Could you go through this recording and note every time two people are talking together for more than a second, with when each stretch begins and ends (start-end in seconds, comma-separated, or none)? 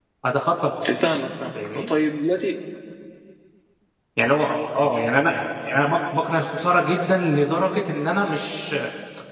none